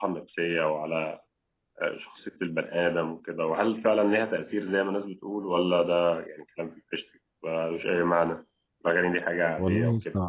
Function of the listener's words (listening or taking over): taking over